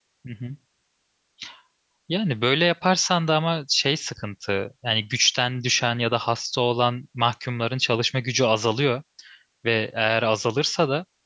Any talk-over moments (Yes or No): No